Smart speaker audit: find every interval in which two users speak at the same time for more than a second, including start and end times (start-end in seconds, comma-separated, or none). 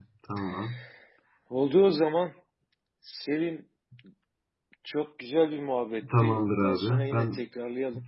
6.2-7.4